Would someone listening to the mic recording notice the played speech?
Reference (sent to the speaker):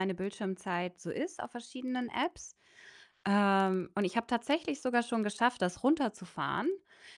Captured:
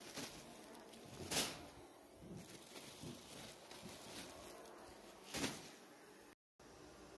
No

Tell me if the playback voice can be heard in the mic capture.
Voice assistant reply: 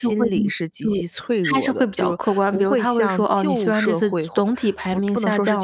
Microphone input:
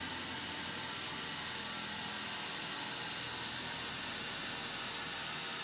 No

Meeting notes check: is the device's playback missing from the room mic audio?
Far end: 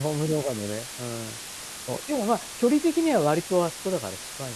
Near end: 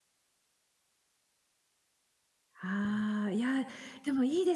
Yes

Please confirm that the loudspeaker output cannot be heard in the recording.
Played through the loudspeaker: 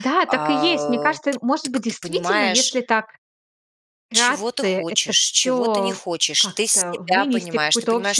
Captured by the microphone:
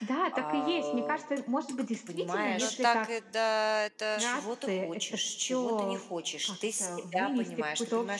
No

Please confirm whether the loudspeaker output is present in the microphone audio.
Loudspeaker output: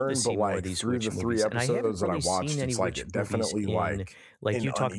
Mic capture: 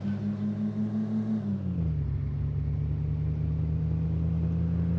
No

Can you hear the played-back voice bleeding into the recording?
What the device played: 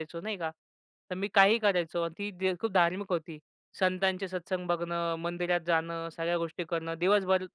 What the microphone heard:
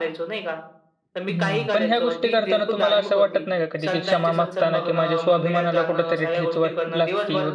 Yes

